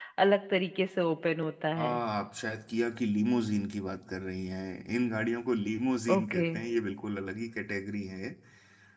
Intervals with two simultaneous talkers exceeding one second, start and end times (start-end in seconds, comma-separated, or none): none